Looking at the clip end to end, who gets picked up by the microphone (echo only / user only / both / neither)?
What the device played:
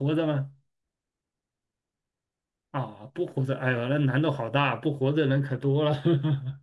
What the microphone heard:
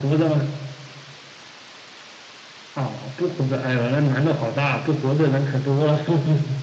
echo only